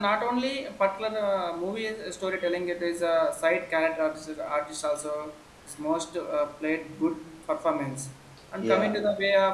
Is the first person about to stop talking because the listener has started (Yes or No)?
No